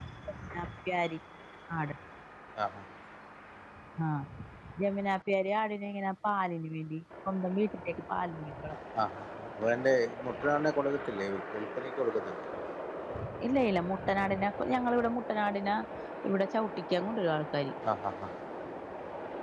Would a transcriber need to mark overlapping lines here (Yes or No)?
No